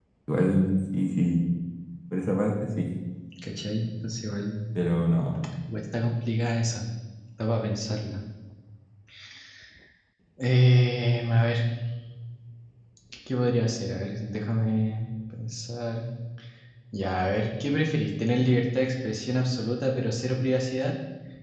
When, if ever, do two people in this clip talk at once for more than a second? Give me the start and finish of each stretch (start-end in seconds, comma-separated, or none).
none